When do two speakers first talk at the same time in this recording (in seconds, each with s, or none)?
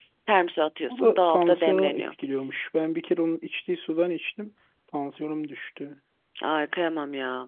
0.9 s